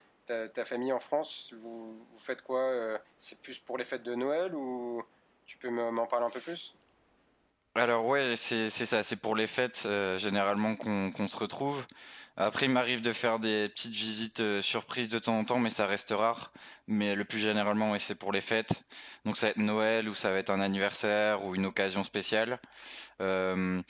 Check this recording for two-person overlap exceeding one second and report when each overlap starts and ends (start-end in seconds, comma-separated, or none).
none